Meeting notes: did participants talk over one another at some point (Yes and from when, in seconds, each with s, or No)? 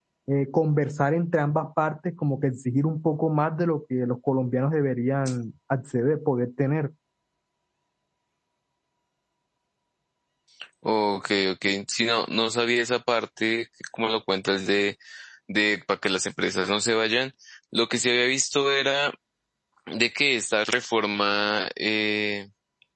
No